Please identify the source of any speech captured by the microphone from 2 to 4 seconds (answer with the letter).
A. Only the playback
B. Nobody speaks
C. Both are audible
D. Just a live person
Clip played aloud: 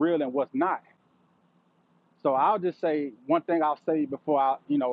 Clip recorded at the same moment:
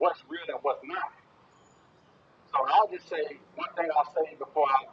A